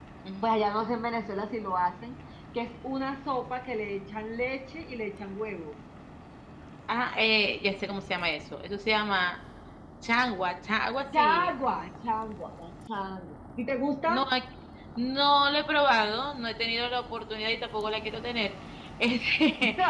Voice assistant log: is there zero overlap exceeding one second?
Yes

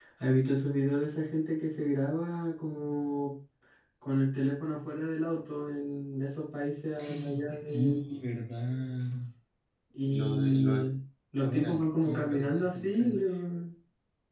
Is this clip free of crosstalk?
No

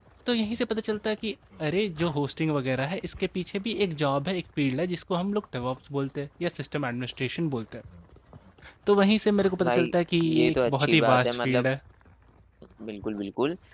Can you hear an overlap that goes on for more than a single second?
Yes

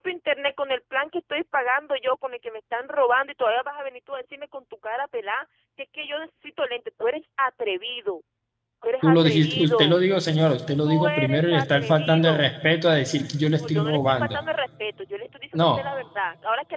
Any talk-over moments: Yes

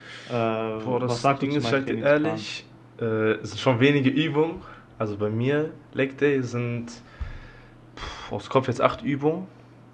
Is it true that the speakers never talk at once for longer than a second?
No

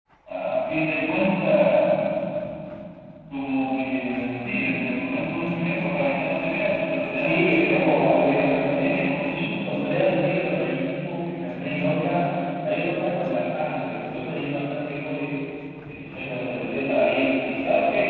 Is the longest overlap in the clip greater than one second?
Yes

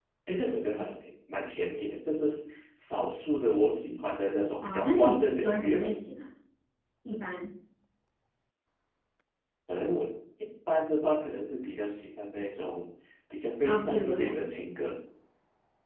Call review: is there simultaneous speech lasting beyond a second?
Yes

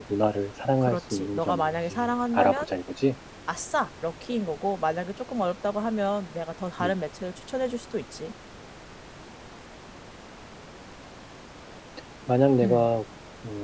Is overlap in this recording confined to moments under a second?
No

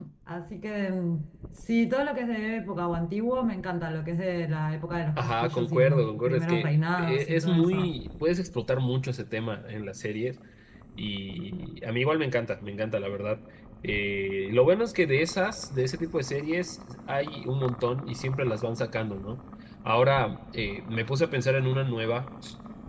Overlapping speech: Yes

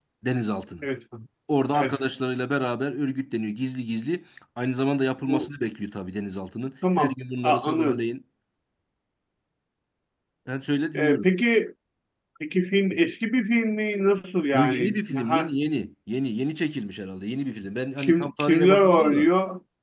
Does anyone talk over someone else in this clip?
Yes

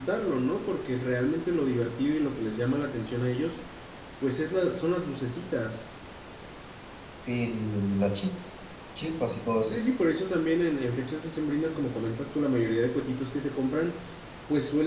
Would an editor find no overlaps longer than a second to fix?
Yes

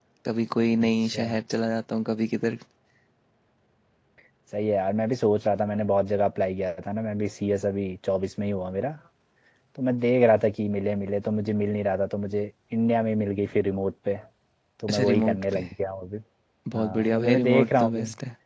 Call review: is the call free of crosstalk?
No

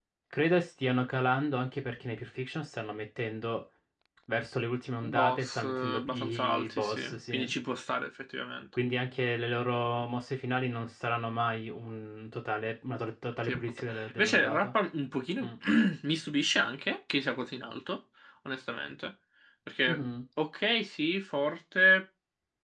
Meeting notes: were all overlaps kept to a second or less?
No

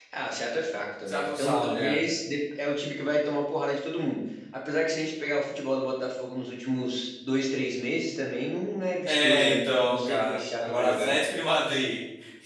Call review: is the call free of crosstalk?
No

